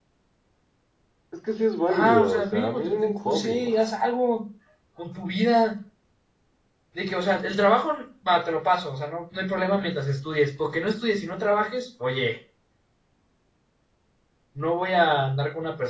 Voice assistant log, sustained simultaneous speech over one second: present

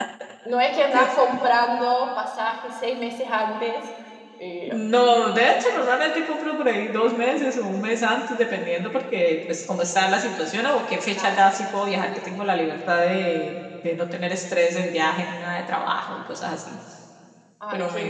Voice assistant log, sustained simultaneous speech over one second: none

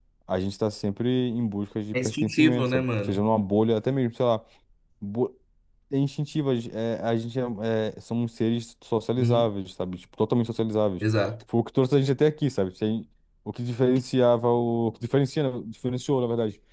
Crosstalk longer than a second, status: present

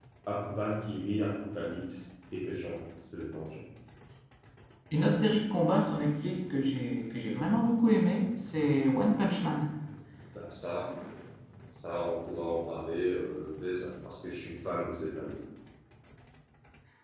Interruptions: none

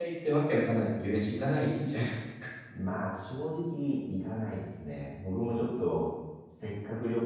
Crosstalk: none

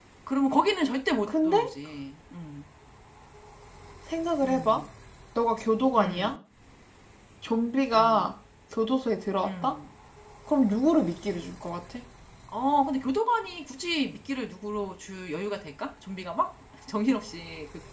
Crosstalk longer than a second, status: none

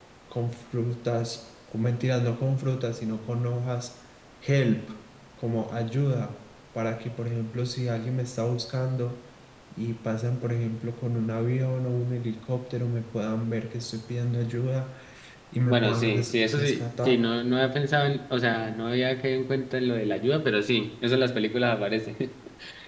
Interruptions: present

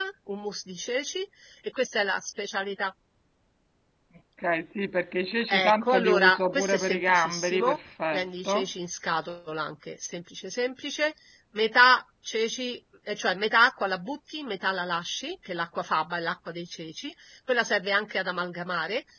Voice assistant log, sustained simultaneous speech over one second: present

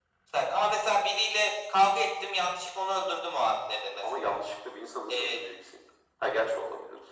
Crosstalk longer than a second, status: none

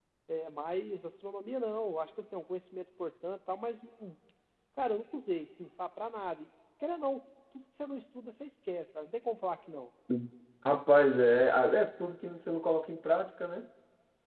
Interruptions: none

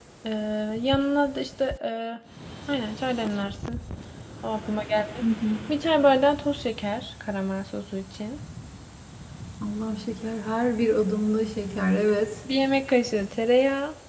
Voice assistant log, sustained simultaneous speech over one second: none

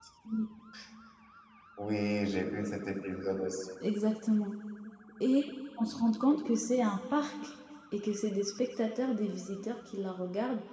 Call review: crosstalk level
none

